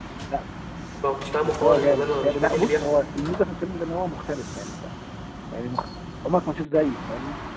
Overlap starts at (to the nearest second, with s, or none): 1 s